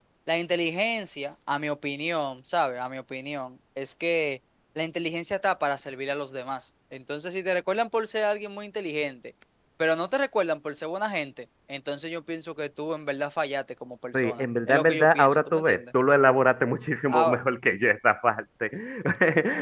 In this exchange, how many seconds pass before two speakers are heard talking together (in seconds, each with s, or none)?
14.1 s